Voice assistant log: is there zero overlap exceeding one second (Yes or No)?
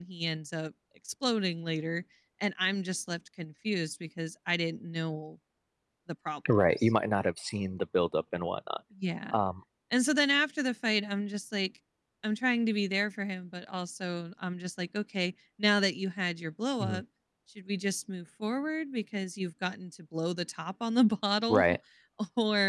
Yes